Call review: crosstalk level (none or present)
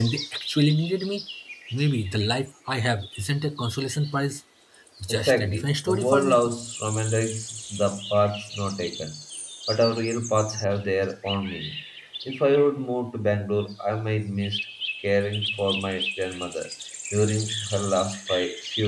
present